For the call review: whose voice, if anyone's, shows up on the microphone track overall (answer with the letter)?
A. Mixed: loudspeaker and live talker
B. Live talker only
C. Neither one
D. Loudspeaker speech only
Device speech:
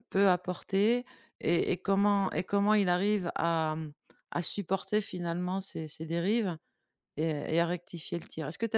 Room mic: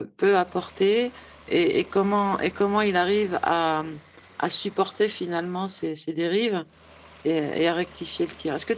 D